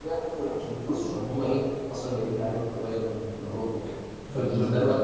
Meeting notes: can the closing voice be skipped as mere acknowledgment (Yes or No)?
Yes